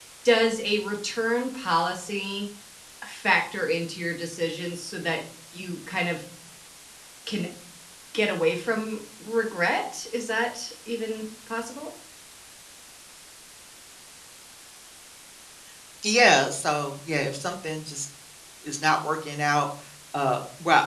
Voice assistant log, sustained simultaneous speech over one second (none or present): none